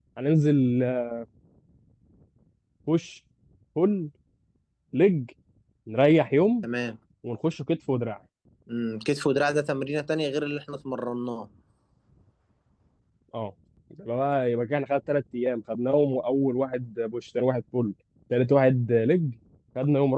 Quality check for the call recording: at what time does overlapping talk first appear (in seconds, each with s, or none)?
none